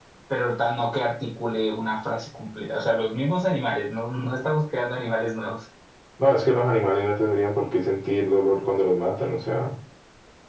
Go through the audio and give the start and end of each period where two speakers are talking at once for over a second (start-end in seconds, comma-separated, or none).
none